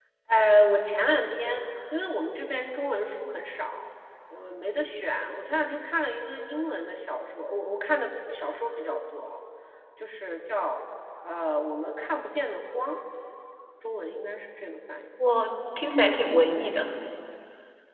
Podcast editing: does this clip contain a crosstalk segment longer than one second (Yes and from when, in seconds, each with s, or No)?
No